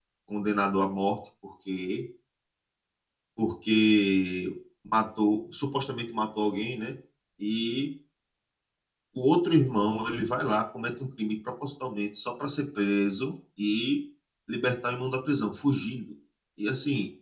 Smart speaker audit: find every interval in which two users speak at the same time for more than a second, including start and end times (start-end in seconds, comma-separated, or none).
none